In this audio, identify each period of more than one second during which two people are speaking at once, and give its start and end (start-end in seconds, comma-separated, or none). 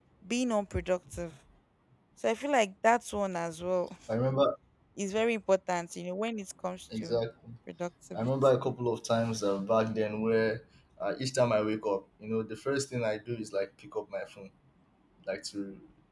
none